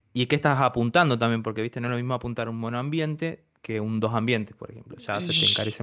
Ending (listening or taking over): taking over